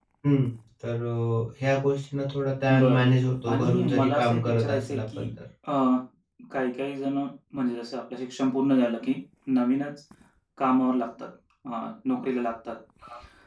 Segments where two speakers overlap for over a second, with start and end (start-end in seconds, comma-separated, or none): 3.5-5.3